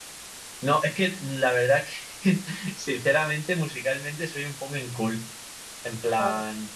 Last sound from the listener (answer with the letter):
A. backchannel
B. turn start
A